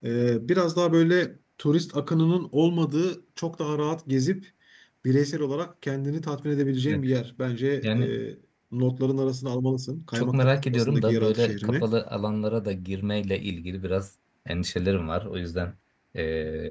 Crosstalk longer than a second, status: present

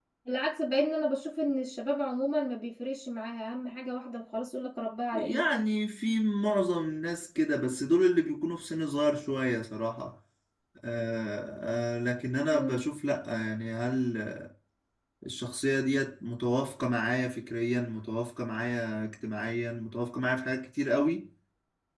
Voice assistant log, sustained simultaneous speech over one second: none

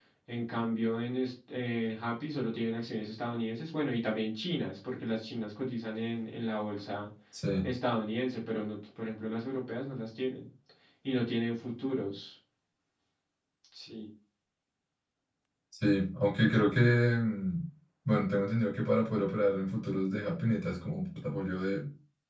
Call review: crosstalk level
none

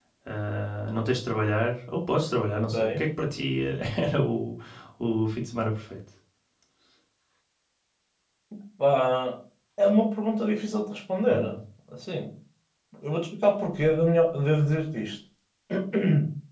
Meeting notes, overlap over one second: none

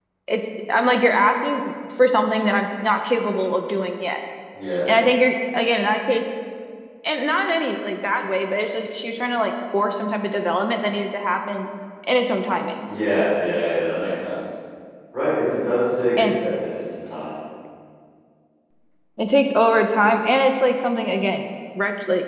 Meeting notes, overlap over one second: none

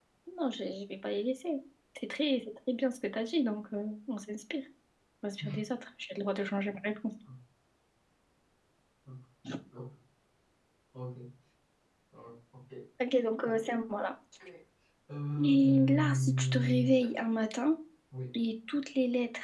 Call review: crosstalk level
present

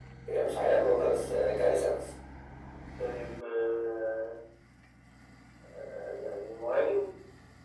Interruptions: none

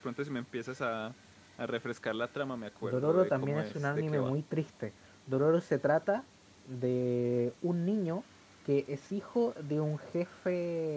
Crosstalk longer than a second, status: present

